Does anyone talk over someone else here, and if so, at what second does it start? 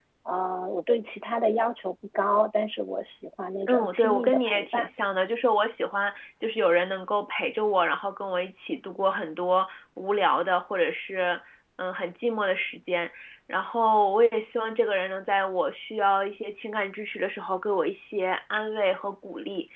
3.6 s

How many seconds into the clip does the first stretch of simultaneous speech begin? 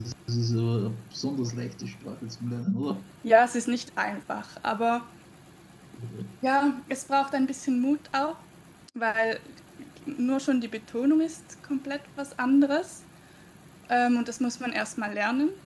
none

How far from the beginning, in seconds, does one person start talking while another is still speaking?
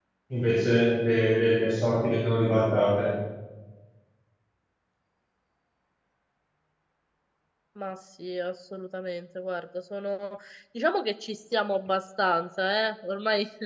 none

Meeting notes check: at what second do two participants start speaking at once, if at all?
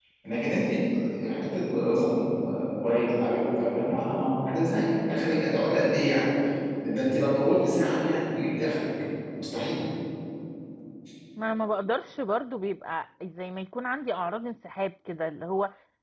none

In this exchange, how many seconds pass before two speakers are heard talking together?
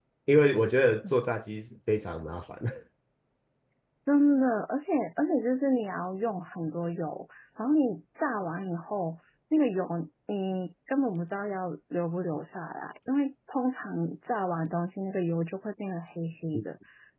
none

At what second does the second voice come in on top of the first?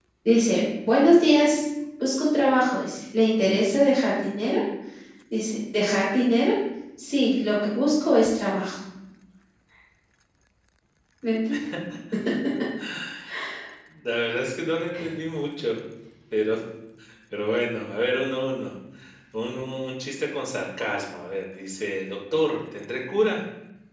none

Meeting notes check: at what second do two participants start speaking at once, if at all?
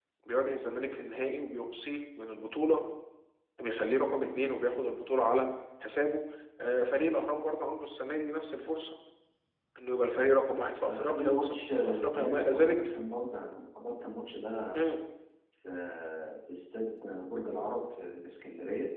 10.8 s

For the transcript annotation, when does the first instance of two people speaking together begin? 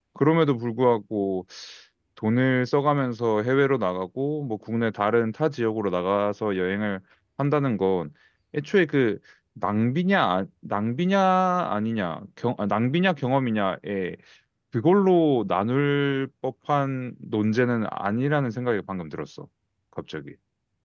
none

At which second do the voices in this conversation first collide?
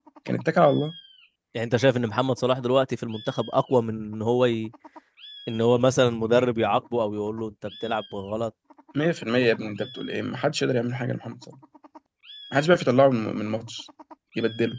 none

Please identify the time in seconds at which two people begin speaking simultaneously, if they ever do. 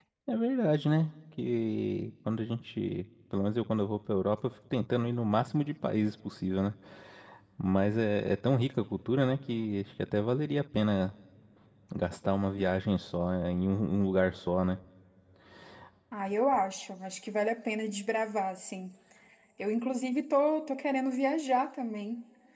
none

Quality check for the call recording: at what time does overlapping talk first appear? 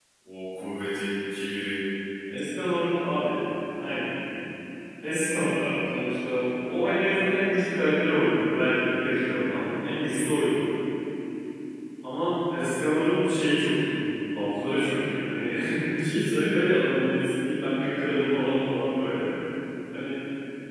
none

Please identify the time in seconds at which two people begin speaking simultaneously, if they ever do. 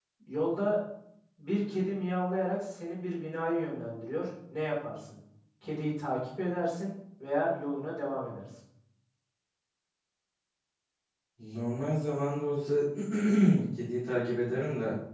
none

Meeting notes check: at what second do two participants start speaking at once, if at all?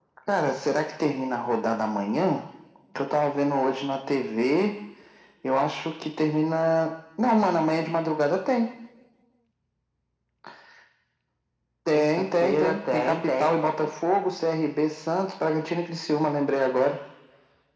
11.9 s

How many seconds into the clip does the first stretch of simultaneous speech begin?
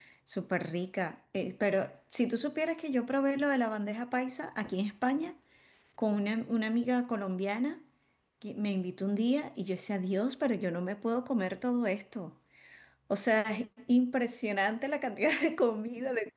none

